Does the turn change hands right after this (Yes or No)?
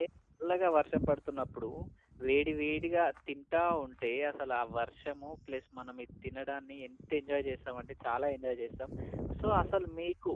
No